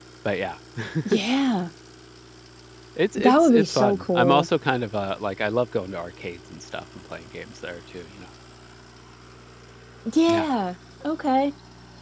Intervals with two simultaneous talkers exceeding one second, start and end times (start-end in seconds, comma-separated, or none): 3.2-4.5